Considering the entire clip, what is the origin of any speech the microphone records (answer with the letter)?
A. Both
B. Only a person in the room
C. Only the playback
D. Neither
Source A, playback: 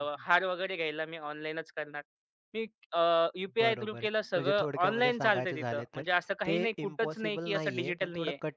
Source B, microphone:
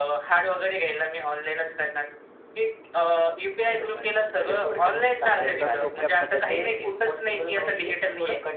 A